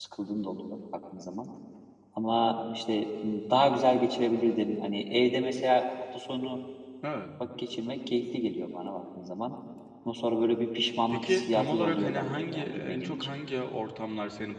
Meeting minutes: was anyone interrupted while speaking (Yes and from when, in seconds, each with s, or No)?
Yes, from 11.1 s